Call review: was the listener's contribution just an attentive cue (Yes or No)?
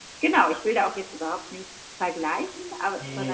Yes